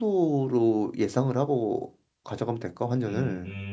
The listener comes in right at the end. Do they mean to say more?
Yes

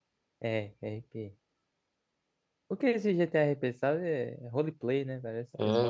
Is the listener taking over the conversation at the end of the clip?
Yes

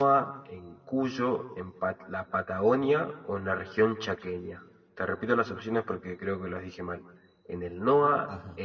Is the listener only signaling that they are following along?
Yes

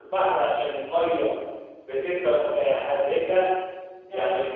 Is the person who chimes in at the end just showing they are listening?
Yes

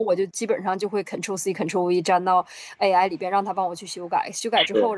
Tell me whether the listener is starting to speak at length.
No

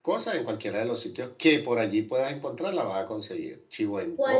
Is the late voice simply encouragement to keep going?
No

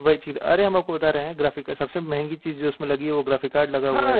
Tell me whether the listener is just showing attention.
No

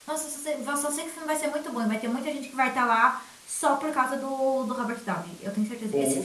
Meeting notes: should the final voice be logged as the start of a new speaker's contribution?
No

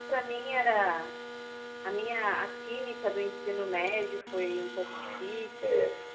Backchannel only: No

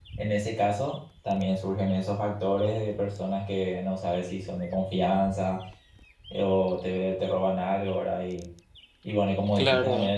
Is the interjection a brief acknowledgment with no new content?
Yes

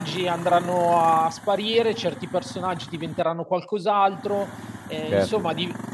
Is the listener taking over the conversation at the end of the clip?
Yes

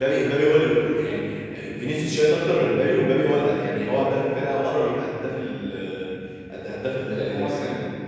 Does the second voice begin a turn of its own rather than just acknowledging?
No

